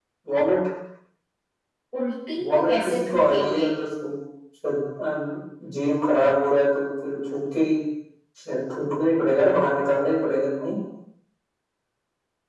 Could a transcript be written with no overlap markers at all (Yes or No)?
No